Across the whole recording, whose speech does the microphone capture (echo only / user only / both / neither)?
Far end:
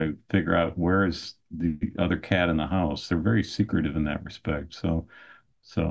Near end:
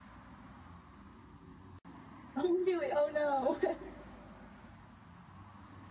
user only